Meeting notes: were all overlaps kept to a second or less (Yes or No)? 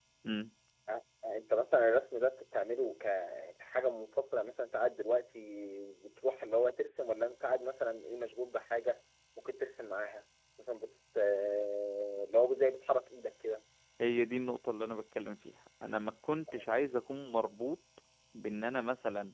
Yes